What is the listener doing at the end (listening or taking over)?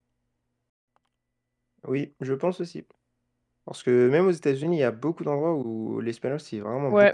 taking over